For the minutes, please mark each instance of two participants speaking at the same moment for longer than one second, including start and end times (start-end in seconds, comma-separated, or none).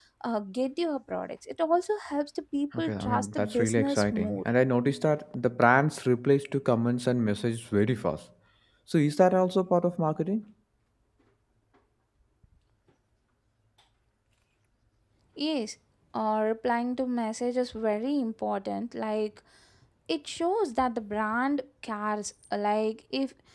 2.8-4.4